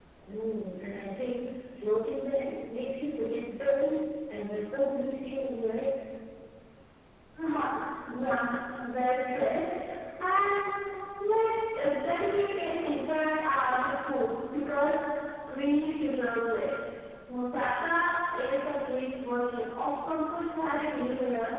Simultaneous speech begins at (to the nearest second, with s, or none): none